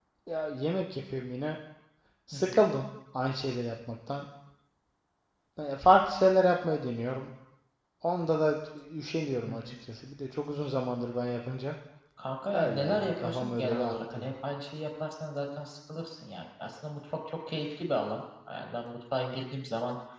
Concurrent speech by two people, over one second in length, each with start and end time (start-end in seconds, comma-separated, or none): 12.5-14.3